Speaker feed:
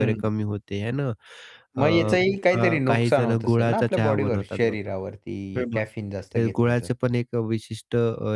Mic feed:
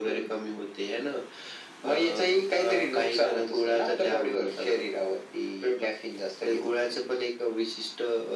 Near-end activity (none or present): none